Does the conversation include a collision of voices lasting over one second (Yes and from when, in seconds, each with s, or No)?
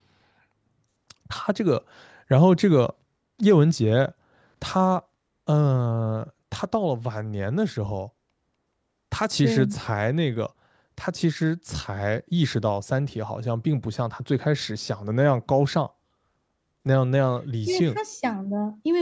No